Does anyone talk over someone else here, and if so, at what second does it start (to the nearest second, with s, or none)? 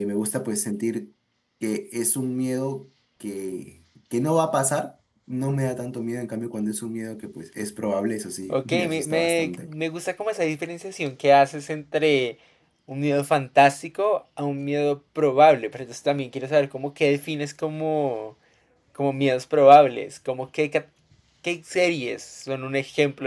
8 s